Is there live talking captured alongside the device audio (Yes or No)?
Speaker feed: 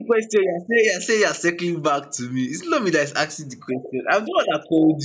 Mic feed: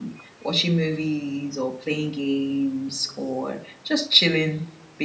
Yes